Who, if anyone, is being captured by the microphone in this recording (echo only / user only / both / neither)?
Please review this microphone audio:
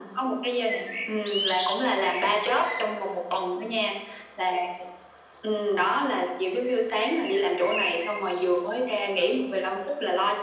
echo only